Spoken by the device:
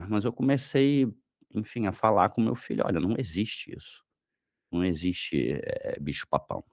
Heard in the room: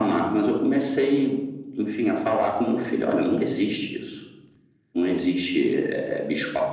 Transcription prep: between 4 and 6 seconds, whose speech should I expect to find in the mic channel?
echo only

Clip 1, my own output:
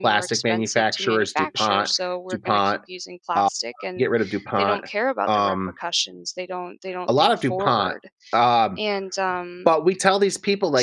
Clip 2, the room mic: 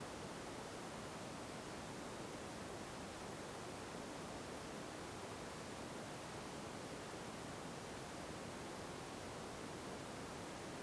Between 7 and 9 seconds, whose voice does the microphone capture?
neither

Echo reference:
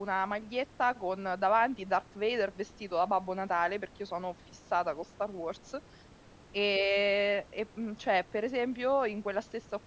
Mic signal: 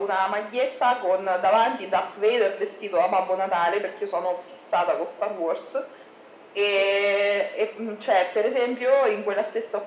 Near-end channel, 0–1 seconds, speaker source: echo only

